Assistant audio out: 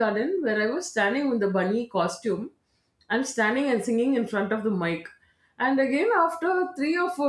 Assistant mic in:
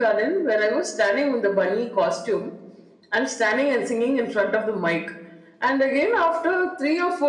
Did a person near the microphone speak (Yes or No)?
No